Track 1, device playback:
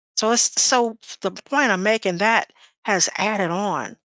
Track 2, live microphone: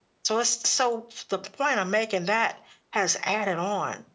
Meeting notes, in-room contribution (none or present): none